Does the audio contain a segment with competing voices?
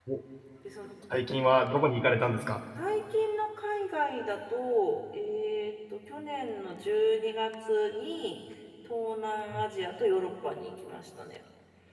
No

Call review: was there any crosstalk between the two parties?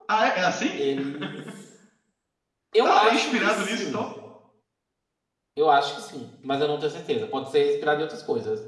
Yes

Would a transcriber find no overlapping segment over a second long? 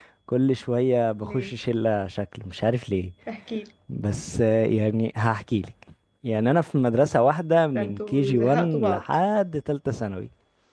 No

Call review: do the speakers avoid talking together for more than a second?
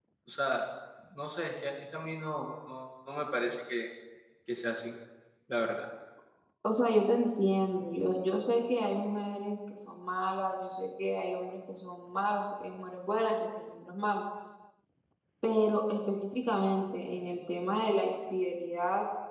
Yes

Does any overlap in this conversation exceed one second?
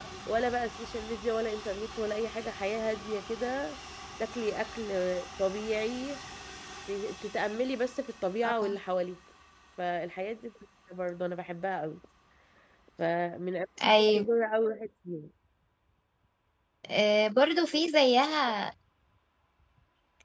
No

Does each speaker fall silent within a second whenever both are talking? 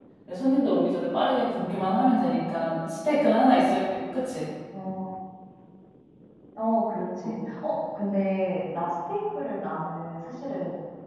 Yes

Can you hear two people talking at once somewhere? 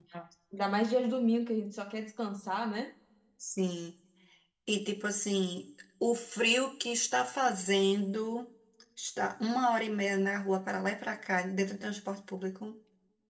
No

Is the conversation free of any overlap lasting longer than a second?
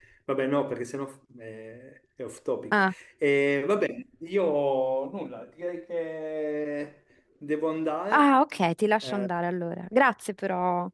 Yes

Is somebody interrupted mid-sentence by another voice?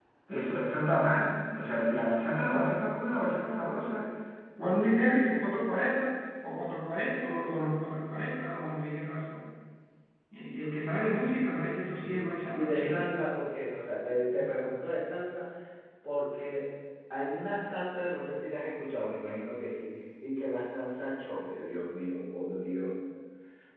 Yes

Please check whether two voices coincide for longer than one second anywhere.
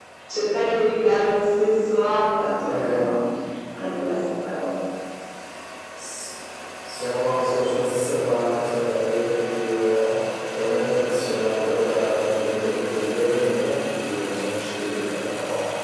No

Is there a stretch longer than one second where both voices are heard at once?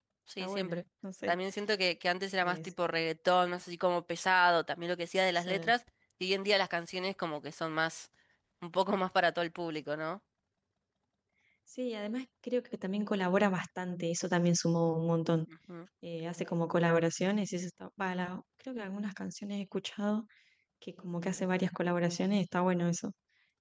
No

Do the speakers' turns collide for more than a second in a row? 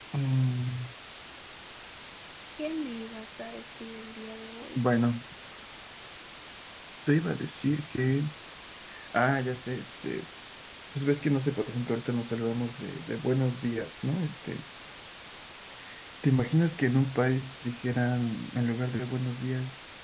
No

